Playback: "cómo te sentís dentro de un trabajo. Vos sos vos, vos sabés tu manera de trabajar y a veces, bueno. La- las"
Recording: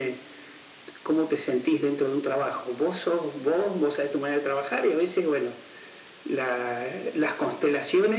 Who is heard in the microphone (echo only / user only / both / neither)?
echo only